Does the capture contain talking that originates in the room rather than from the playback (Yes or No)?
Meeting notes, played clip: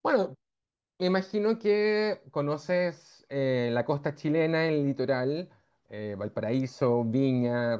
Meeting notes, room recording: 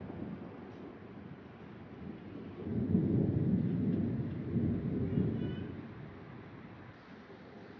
No